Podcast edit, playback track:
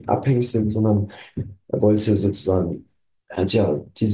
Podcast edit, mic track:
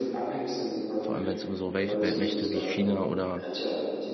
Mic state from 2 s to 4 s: both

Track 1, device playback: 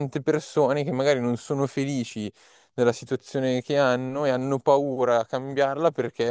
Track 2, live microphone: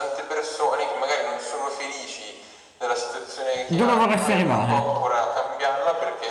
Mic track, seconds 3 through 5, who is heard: both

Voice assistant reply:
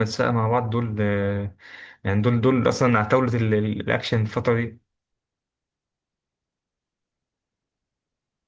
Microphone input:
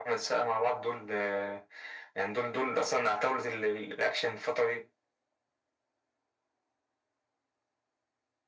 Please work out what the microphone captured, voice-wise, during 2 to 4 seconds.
echo only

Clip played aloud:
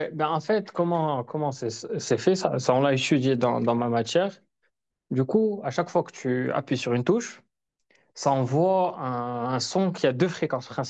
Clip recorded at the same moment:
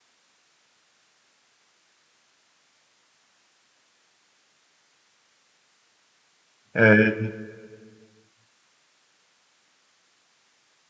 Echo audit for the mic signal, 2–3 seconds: neither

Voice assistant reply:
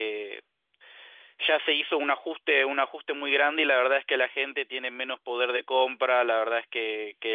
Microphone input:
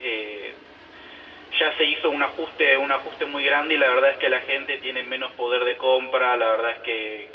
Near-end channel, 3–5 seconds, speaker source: echo only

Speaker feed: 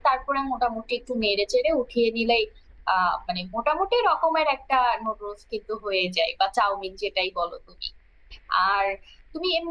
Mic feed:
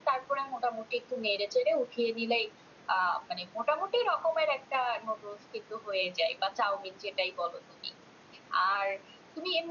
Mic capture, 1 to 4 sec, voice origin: echo only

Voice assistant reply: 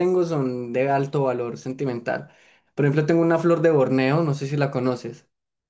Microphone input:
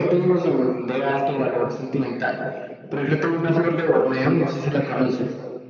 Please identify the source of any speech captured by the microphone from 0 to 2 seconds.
echo only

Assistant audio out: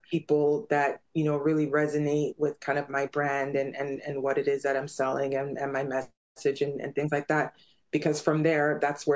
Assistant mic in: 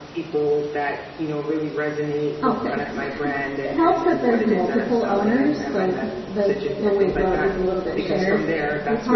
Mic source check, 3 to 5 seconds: both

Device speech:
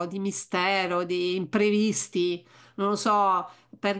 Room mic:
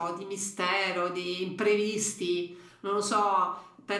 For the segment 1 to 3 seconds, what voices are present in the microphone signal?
echo only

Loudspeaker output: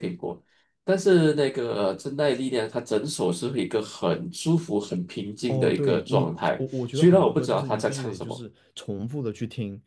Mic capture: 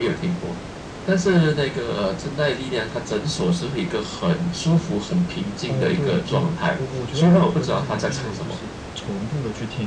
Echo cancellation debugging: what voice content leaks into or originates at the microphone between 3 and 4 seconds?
echo only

